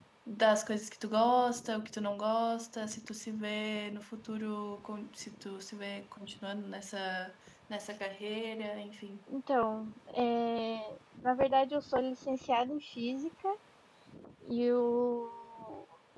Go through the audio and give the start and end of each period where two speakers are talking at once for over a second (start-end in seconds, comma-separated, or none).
none